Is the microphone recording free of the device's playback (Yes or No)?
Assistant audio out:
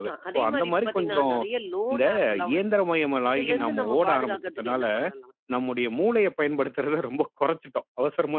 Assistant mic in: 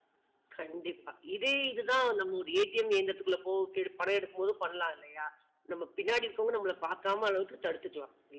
Yes